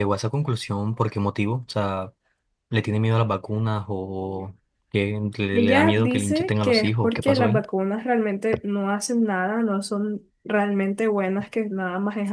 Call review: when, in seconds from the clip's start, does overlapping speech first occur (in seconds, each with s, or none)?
5.5 s